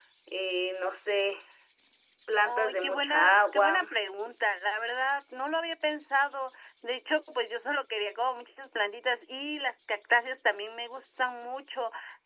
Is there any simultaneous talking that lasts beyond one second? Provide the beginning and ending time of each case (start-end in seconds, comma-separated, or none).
2.4-3.9